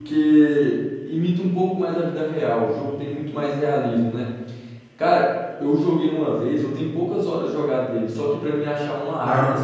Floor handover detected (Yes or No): No